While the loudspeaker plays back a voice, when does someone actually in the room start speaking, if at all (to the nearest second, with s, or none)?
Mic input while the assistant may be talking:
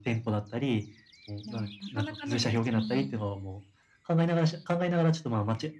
1 s